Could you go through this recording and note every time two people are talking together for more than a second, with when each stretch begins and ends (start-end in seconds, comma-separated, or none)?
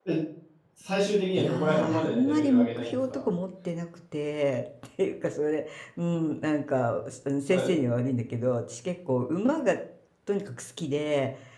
1.4-3.2